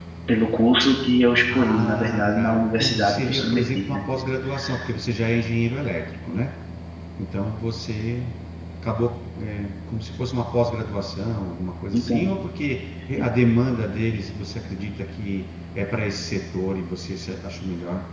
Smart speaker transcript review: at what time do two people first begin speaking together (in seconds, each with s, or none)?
1.6 s